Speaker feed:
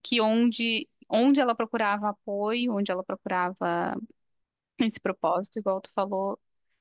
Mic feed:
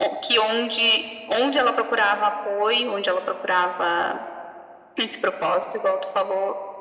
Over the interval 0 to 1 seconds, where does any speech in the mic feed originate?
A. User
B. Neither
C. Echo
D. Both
C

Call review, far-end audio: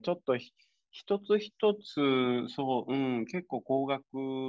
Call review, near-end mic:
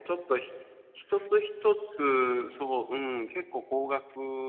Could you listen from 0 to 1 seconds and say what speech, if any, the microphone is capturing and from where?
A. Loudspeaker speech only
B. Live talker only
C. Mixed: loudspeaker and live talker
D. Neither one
A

